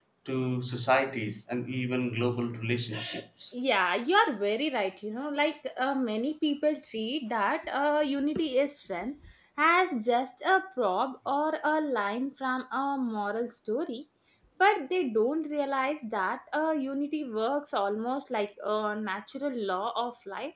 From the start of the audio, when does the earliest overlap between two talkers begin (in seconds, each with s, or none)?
none